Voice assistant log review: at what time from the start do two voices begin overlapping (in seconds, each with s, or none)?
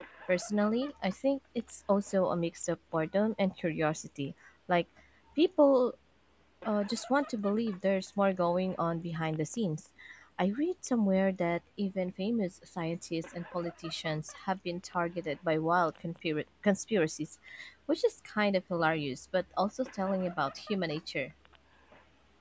none